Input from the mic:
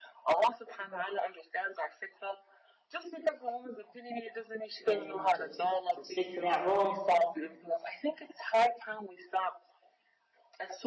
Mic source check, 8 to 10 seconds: echo only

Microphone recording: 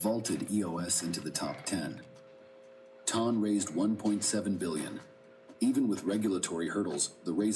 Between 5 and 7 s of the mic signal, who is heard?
echo only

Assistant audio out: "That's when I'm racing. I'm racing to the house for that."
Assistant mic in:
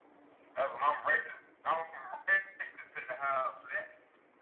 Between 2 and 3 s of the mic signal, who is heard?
echo only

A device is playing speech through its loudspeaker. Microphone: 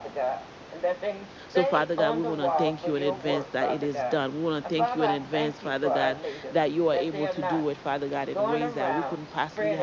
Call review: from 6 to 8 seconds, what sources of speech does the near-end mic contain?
both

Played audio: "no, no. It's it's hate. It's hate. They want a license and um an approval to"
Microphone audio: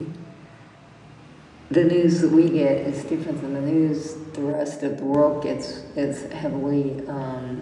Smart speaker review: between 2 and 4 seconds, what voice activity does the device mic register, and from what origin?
user only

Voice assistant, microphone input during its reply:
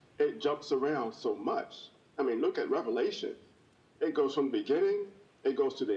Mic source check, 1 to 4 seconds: echo only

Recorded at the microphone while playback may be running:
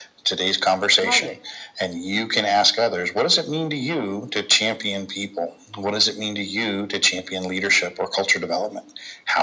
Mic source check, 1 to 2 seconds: both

